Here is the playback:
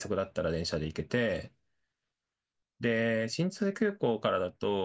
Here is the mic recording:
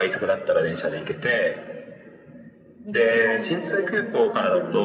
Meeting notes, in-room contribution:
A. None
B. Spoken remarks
B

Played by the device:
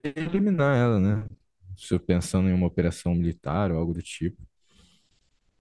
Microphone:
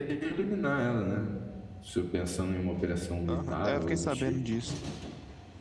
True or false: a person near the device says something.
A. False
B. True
B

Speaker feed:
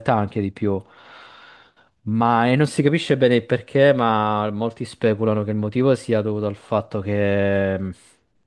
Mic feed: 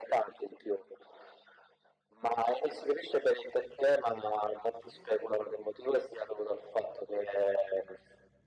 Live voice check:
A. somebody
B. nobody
B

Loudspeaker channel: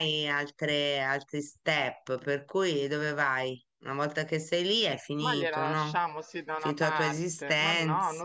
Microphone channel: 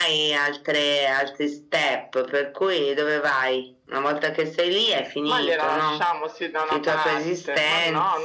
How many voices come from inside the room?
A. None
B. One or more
A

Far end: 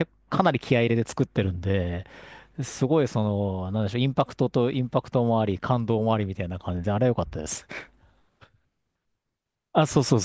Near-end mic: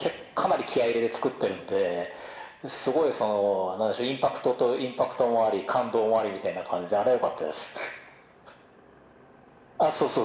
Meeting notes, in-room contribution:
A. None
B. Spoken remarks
A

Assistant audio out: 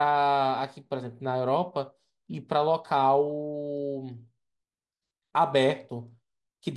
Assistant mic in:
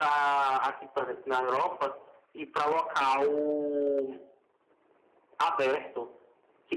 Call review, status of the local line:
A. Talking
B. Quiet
B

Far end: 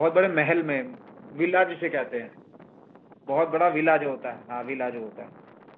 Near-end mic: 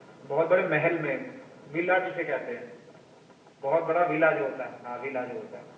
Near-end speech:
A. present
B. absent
B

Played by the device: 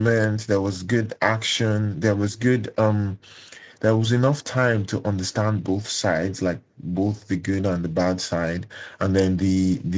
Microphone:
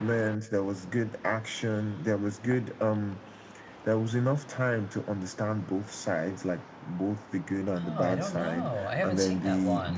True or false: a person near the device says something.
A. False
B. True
B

